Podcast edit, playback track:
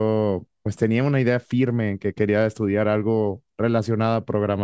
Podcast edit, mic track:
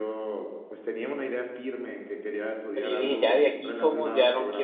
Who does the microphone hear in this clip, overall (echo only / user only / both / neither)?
both